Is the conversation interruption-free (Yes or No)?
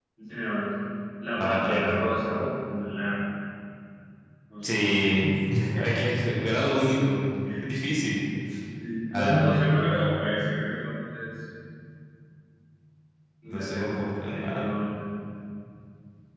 No